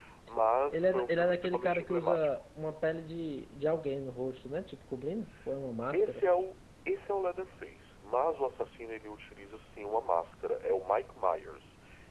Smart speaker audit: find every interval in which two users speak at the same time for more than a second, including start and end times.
0.7-2.3

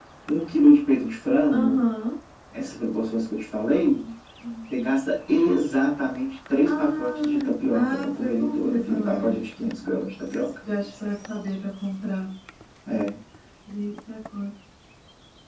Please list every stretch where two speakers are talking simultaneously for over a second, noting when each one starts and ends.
6.6-9.4

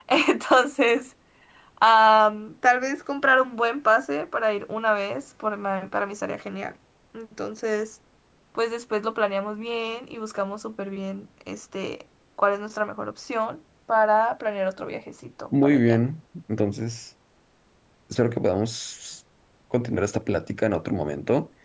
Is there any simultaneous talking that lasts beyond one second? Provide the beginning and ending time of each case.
none

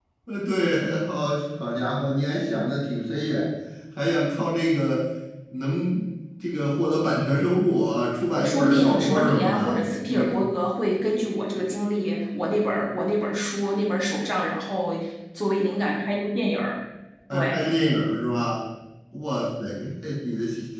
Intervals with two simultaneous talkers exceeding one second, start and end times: 8.4-10.4

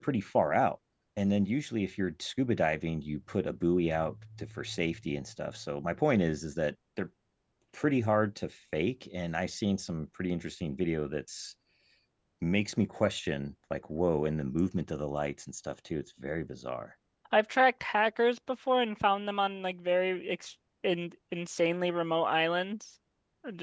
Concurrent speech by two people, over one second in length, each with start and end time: none

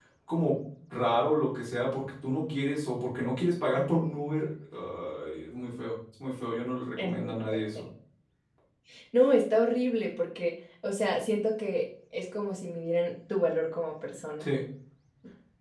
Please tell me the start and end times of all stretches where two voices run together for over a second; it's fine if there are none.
none

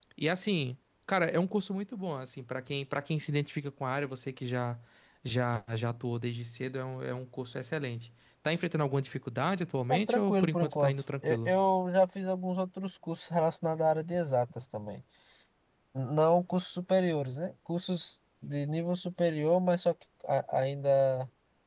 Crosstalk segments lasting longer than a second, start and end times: 9.9-11.6

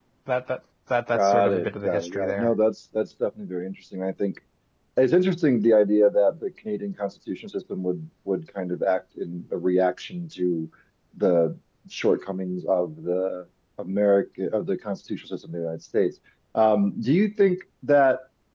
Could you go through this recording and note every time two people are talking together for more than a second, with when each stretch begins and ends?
1.1-2.5

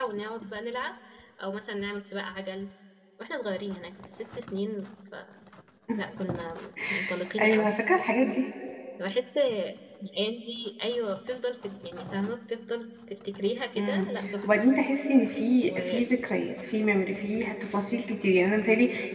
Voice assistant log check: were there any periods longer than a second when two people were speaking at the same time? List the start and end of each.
none

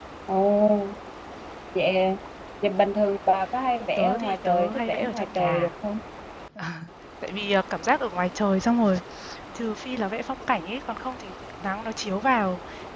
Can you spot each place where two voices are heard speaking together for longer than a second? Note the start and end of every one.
4.0-5.7

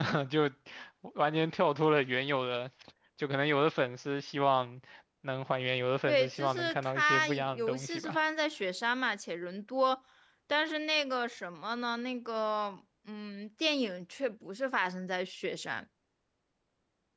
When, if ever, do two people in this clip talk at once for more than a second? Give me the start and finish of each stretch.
6.1-8.2

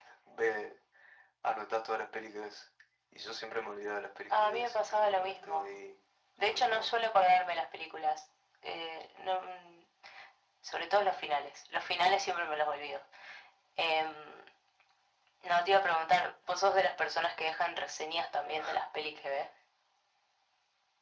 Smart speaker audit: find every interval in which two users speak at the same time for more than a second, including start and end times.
4.4-5.7

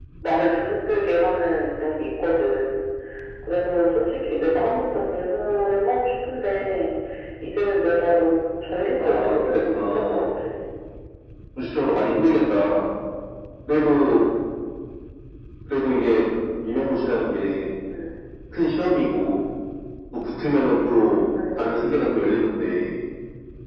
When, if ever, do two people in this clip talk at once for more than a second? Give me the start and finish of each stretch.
9.0-10.2

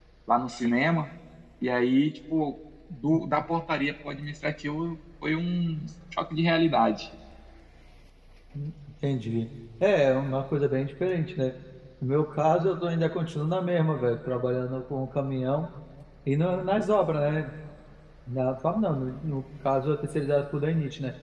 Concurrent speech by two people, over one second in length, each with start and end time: none

